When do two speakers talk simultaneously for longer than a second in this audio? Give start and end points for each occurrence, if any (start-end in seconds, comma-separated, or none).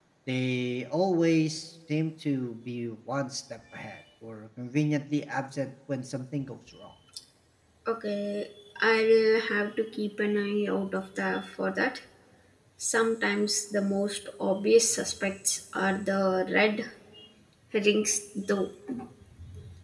none